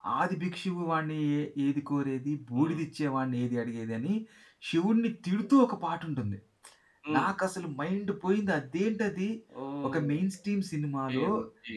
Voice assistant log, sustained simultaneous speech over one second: none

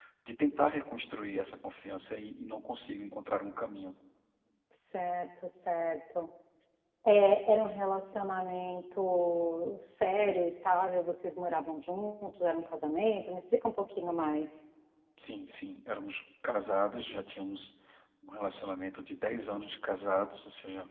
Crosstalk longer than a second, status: none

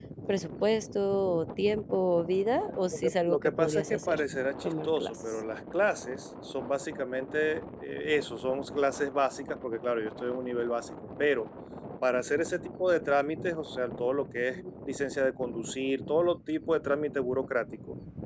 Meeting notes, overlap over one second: present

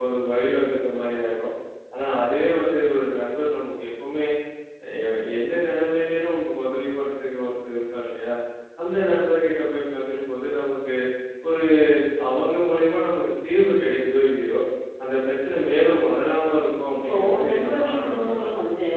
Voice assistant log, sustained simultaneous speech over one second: present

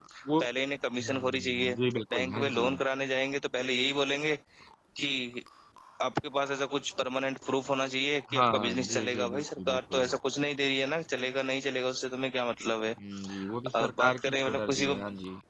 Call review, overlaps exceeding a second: present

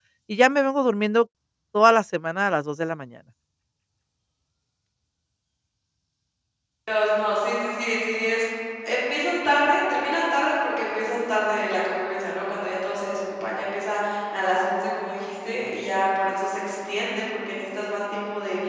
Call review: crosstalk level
none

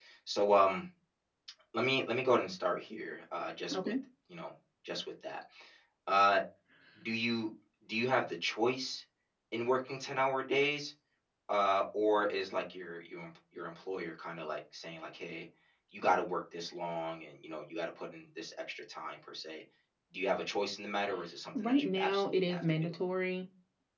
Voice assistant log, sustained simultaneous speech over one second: present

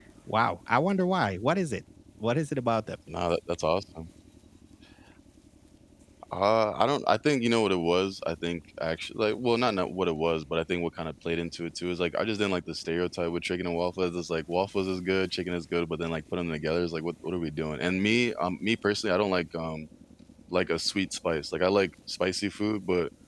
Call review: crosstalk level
none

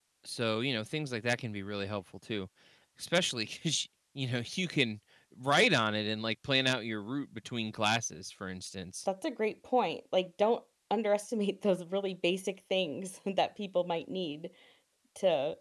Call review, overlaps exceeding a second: none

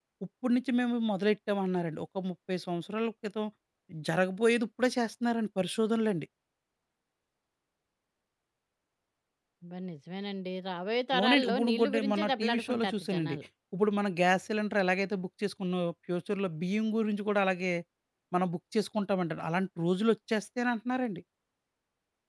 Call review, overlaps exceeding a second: present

